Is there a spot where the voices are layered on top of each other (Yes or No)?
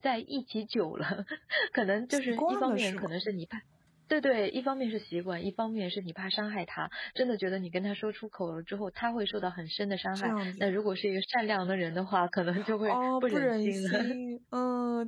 Yes